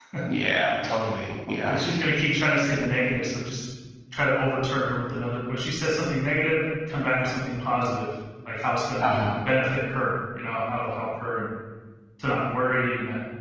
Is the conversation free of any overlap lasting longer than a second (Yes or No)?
Yes